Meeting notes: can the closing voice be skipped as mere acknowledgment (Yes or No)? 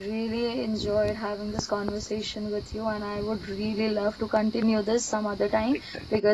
Yes